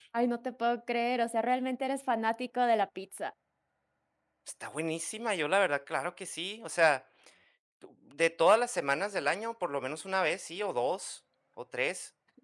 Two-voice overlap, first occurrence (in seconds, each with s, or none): none